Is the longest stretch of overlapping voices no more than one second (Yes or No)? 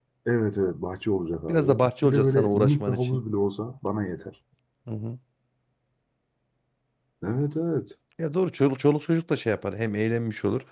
No